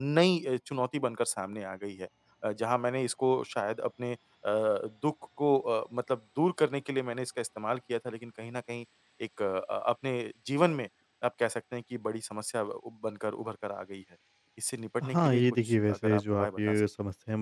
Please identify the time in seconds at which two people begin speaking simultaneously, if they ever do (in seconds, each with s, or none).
15.0 s